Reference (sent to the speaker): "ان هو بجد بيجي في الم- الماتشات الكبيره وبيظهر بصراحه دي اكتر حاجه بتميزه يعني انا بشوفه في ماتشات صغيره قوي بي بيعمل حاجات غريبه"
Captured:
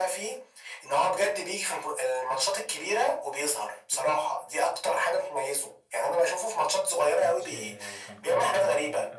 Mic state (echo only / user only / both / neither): both